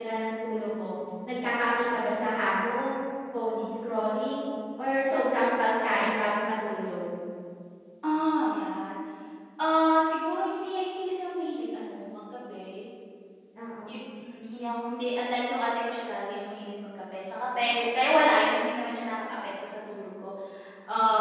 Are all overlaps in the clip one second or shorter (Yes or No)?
Yes